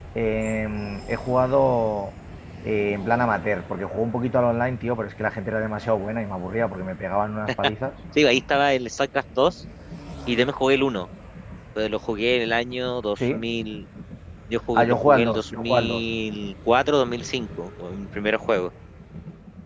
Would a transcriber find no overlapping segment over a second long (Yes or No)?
No